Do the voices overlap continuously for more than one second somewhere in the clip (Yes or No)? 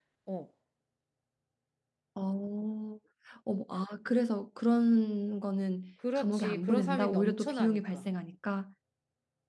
Yes